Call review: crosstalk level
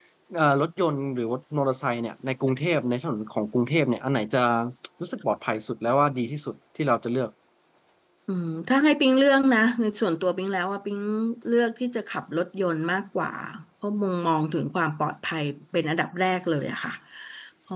none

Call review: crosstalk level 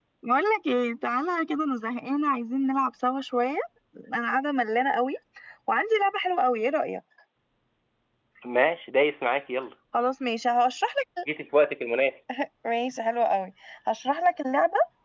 none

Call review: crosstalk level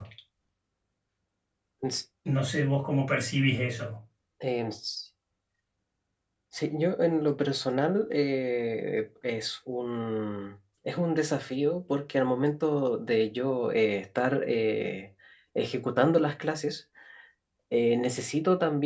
none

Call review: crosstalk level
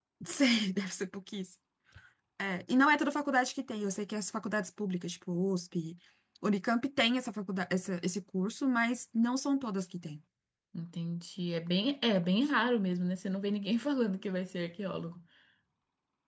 none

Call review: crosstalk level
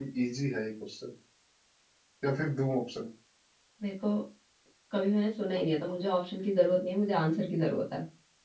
none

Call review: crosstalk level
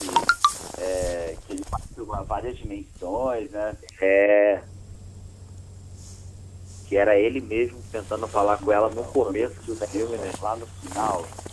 present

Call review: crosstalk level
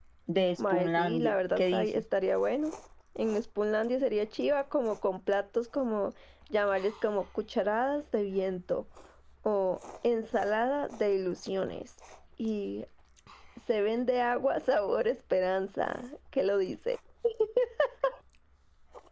present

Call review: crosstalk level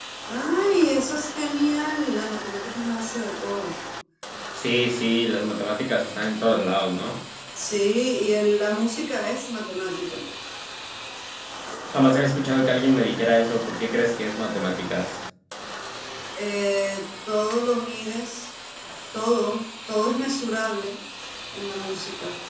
none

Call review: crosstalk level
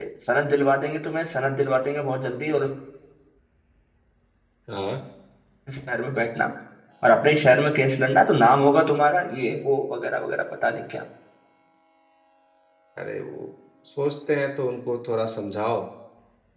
none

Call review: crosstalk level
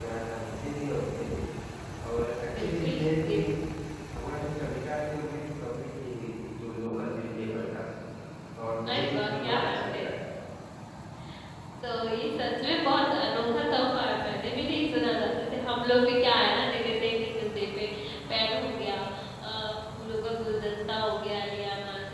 present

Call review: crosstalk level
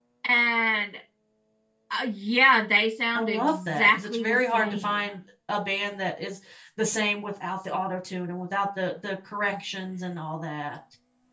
present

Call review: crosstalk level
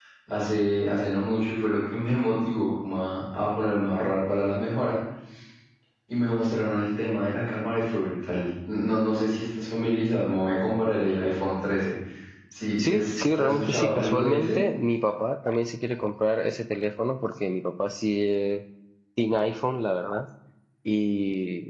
present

